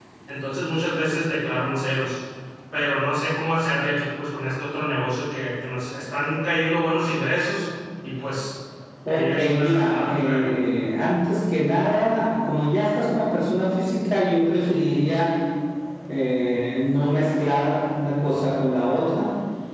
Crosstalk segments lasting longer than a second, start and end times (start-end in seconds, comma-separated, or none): 9.1-10.6